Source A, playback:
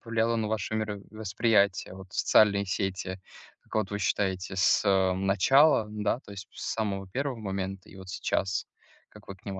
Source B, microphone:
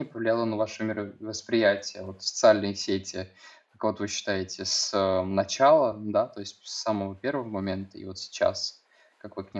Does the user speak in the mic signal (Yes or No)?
No